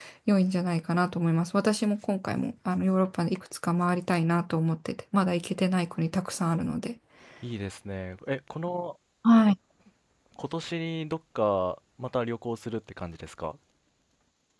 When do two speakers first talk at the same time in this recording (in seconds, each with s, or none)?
none